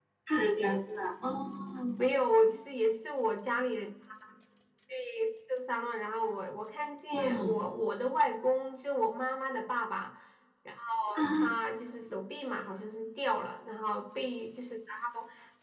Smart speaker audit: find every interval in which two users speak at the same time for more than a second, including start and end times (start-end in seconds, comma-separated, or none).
none